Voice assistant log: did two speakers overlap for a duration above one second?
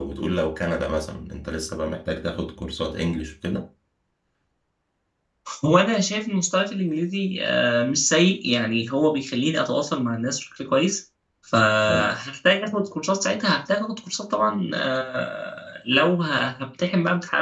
No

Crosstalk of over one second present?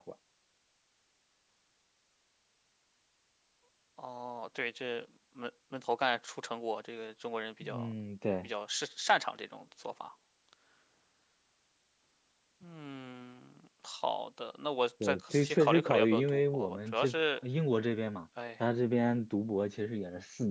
Yes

